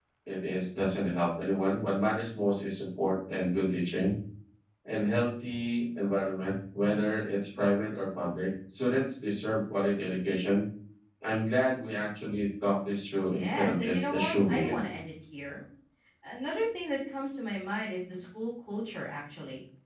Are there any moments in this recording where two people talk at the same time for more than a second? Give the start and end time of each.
13.3-14.8

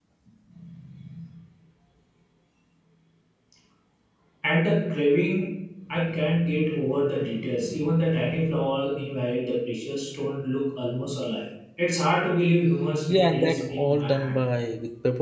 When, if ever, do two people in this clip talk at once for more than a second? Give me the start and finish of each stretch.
13.1-14.4

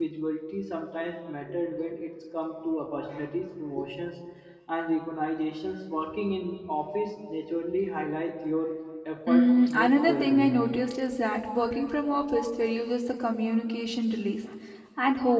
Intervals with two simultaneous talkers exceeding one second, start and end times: 9.3-10.6

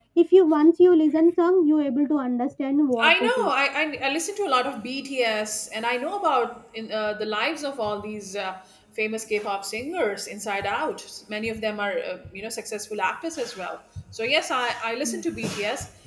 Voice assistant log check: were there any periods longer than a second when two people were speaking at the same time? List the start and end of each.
none

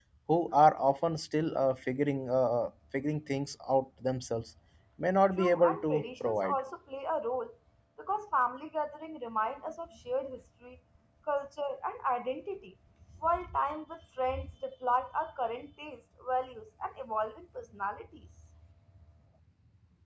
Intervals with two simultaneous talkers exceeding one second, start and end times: 5.4-6.6

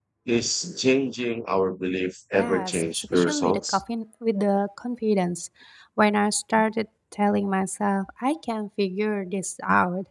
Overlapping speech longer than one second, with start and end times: 2.3-3.8

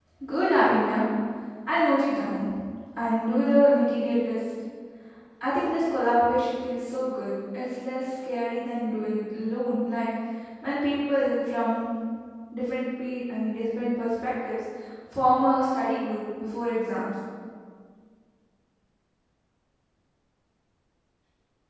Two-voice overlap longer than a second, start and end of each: none

